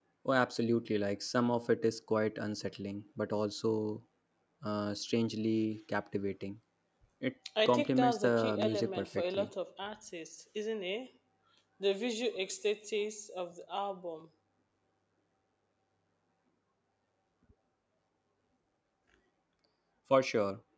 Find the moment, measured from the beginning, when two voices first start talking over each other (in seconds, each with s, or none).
7.6 s